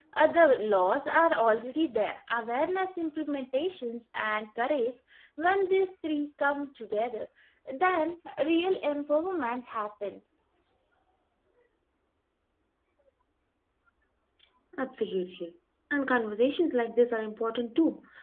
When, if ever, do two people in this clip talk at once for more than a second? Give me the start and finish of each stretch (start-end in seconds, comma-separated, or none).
none